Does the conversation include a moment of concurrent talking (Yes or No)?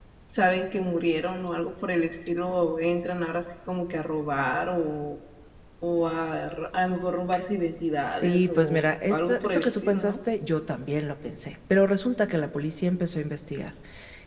Yes